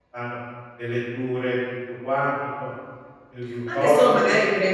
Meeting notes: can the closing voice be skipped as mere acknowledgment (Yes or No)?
No